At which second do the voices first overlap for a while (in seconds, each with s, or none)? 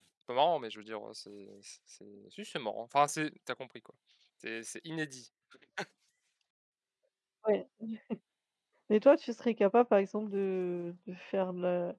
none